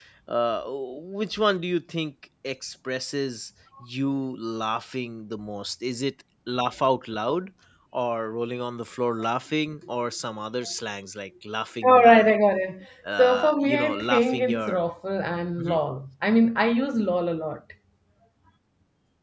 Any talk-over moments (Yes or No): Yes